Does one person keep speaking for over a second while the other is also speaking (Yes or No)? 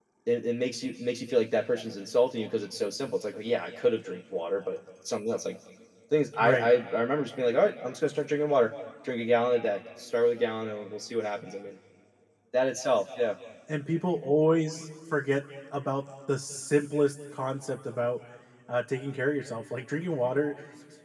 No